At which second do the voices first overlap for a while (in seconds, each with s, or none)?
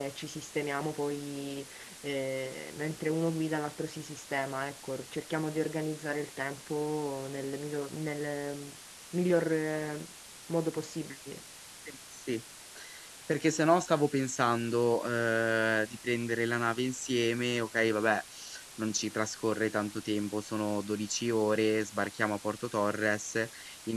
none